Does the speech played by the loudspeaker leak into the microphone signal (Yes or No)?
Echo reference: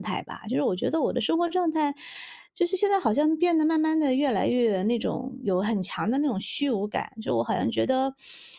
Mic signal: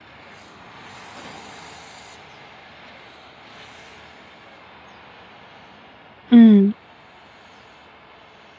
No